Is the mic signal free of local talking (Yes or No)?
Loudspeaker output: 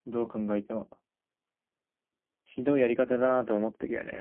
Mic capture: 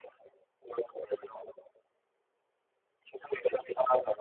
Yes